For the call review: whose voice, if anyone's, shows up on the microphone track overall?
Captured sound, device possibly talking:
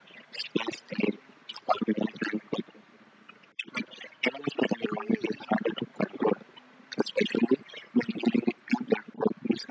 echo only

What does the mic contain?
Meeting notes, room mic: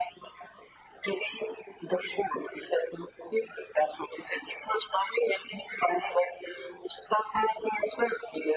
echo only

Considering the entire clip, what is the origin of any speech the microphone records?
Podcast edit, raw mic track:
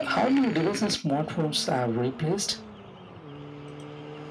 echo only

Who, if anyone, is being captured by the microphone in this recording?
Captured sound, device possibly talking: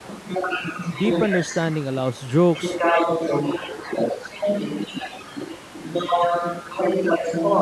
both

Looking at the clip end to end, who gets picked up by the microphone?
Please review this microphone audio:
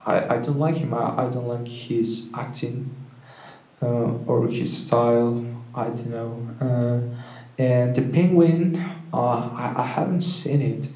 echo only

